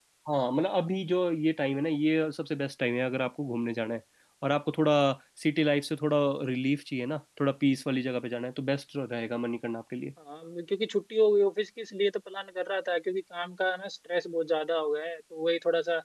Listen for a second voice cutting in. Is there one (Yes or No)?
No